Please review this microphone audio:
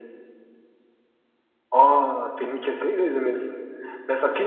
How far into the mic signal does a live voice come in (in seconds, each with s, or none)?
none